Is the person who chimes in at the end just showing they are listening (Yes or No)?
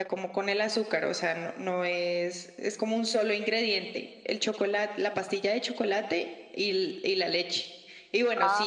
Yes